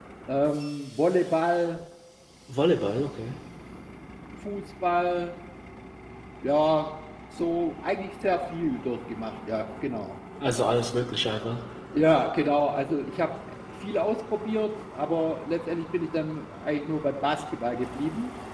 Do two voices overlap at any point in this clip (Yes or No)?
No